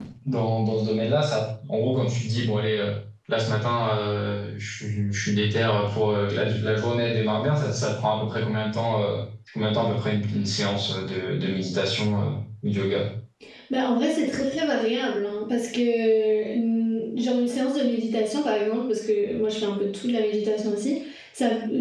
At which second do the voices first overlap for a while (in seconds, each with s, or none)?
none